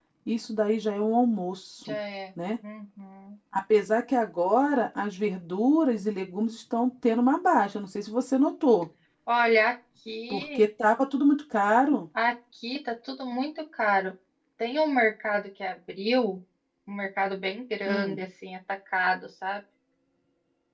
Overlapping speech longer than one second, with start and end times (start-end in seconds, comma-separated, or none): none